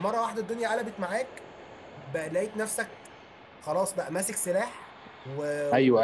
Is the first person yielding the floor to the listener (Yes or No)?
Yes